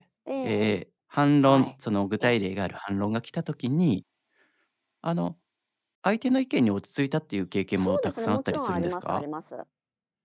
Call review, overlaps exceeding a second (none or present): present